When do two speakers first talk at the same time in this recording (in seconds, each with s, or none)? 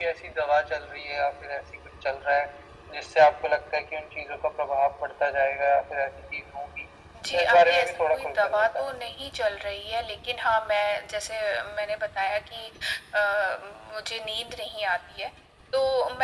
7.3 s